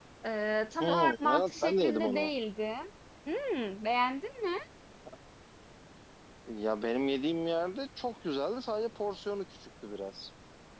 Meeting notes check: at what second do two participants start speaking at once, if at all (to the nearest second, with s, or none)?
1 s